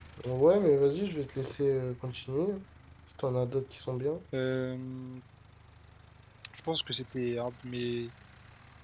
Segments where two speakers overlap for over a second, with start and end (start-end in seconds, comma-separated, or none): none